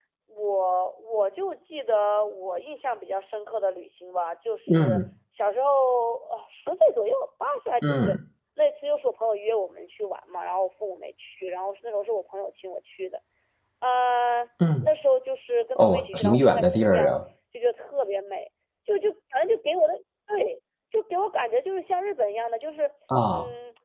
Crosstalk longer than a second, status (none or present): present